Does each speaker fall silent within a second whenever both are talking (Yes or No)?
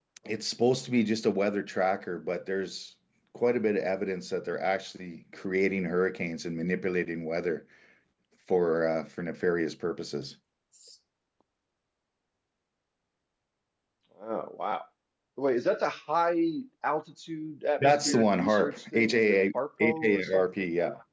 No